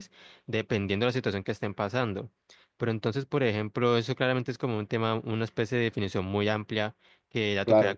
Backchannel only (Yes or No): Yes